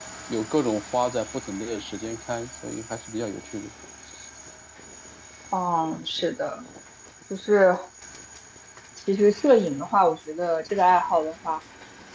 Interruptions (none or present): none